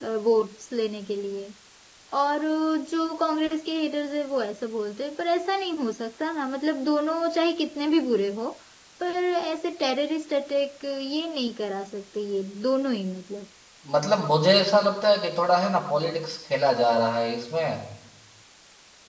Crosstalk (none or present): none